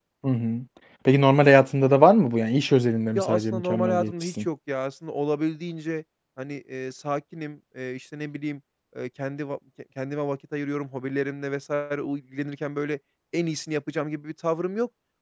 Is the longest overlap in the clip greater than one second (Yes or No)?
Yes